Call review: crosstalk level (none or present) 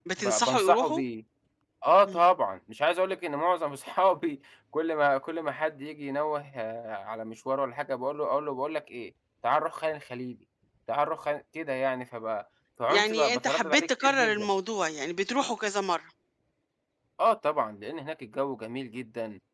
present